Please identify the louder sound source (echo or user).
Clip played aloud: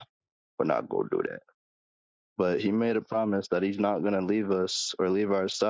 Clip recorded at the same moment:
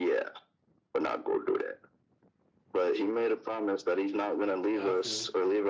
echo